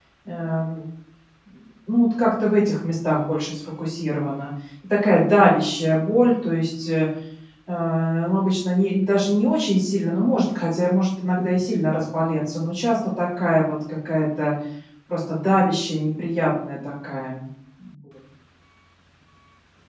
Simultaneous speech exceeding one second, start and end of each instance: none

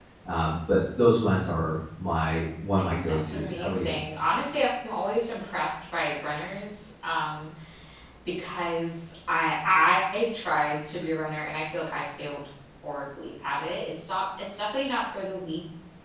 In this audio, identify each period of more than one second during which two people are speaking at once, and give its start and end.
2.8-4.0

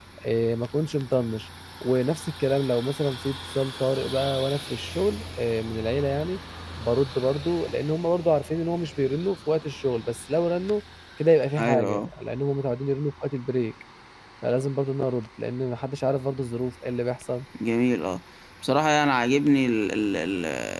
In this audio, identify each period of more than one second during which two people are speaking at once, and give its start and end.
none

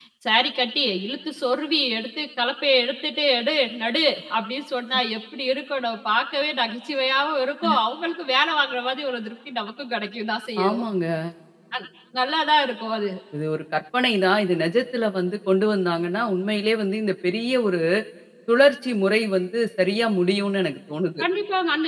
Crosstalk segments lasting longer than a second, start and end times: none

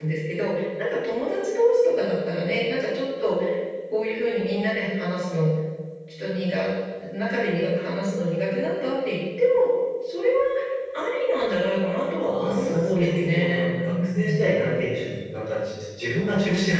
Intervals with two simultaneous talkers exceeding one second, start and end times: 12.2-14.4

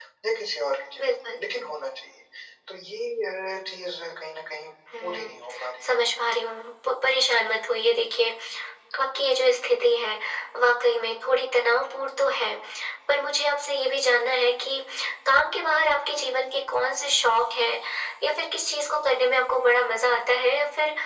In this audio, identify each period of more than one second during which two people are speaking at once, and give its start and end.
none

